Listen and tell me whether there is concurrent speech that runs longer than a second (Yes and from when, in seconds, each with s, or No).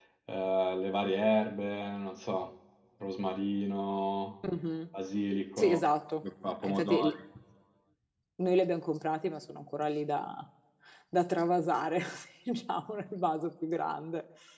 No